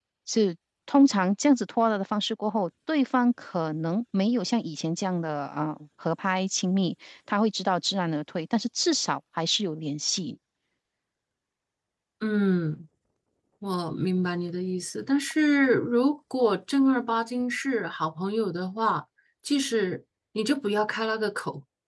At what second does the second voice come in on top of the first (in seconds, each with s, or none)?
none